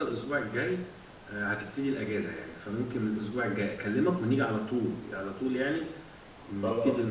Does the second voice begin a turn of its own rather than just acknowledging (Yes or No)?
Yes